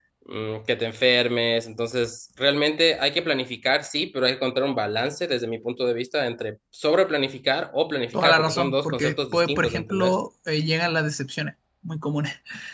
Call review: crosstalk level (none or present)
present